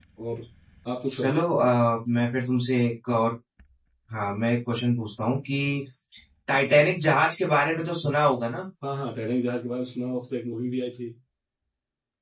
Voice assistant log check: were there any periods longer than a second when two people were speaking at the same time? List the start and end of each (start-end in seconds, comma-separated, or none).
none